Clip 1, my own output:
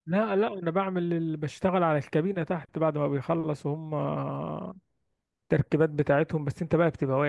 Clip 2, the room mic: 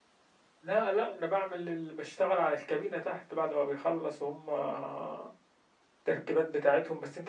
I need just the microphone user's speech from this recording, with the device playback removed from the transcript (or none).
none